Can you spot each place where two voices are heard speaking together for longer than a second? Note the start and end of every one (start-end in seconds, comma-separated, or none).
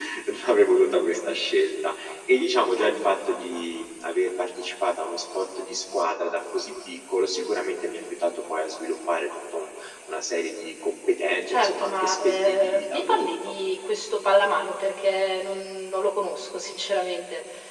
11.5-13.3